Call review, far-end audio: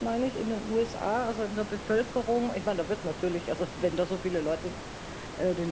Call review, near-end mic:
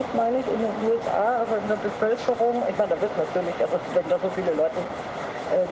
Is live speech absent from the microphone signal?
Yes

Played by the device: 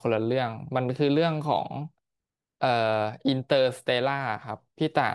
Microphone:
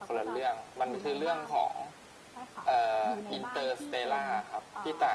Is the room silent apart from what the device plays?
No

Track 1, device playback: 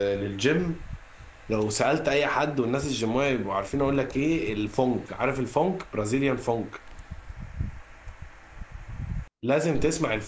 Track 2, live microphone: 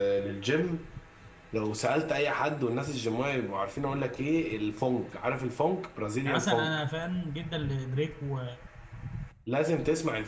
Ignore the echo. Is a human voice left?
Yes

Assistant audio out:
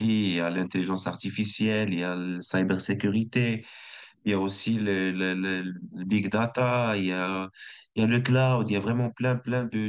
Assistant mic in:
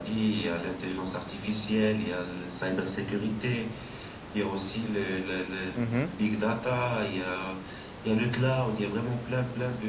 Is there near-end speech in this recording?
Yes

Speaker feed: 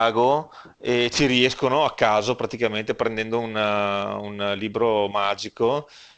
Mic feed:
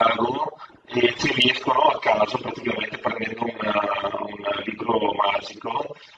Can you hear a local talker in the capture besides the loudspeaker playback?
No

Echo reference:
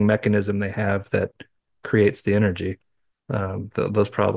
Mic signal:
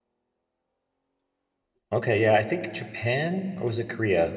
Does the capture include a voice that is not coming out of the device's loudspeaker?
Yes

